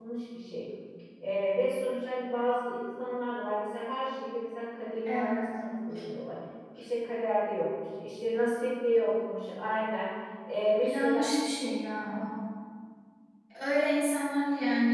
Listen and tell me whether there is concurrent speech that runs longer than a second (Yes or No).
No